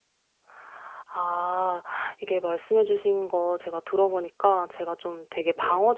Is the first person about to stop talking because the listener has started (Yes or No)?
No